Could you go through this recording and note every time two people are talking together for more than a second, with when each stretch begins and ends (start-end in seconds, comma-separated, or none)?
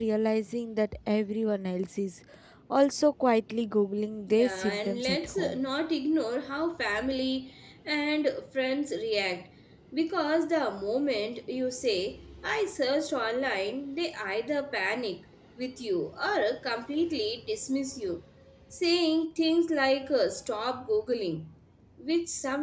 4.3-5.6